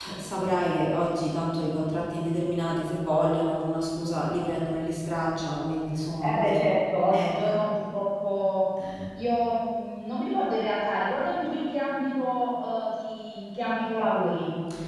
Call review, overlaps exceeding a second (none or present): none